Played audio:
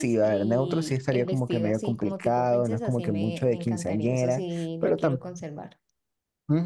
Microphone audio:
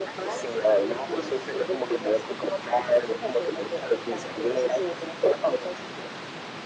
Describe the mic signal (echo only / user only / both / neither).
echo only